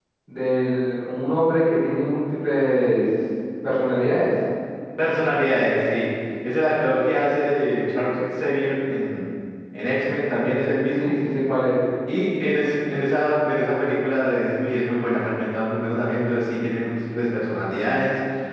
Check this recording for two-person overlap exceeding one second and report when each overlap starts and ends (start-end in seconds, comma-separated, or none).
none